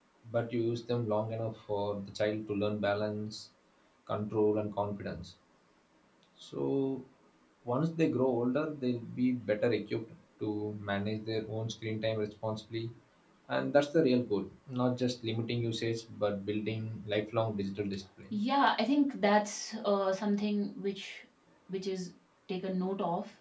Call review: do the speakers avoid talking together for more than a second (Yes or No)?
Yes